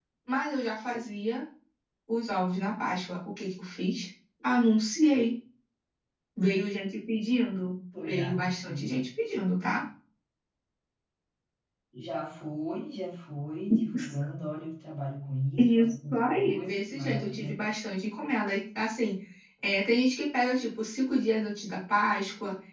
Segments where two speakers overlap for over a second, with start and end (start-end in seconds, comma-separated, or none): 15.6-17.5